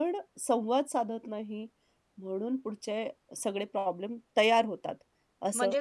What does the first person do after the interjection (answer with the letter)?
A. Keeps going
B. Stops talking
B